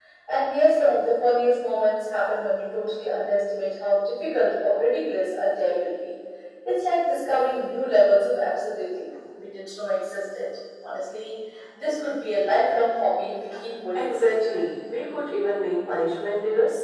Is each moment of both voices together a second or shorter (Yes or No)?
Yes